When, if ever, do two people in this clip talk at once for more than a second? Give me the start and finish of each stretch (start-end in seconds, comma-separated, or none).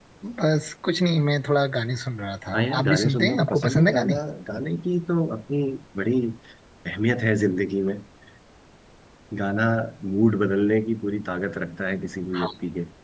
2.5-4.2